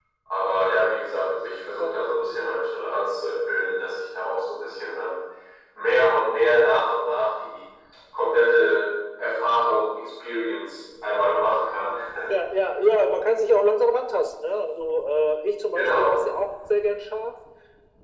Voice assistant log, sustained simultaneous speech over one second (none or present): none